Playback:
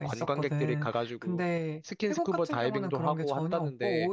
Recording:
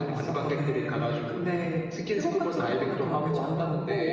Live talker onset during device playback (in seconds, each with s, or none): none